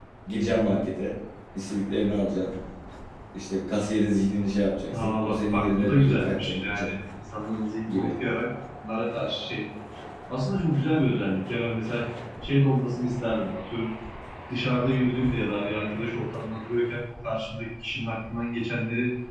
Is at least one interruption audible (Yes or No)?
Yes